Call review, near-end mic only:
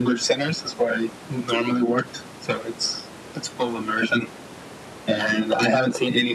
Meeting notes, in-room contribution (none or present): none